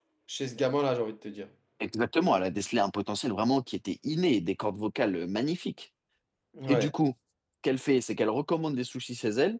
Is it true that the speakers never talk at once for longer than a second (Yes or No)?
Yes